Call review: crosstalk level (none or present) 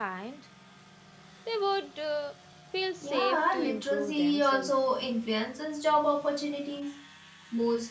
present